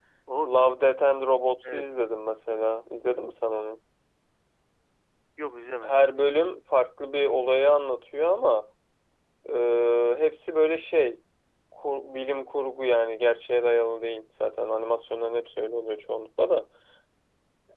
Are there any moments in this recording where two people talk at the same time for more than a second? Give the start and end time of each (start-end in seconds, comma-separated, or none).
none